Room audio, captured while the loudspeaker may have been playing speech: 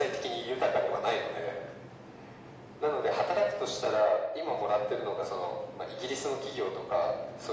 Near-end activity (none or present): none